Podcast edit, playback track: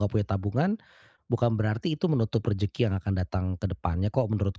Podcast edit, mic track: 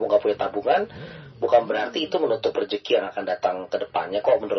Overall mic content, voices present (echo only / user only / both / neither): echo only